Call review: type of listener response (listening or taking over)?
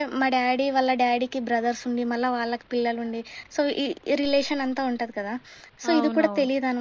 listening